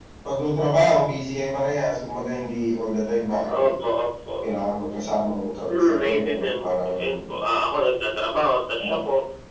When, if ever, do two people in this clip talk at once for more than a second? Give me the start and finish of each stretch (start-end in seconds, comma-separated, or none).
5.7-7.2